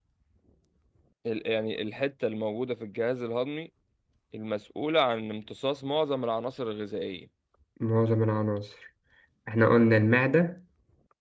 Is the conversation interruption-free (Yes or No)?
Yes